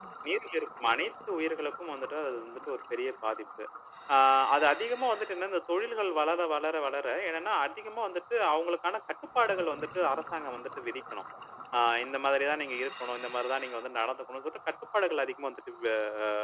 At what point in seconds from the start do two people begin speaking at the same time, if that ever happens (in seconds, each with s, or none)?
none